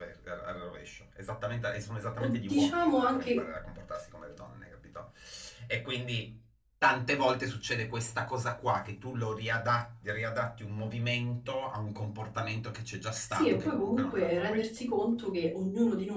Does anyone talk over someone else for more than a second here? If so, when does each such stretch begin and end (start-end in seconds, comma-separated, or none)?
2.2-3.4, 13.3-15.1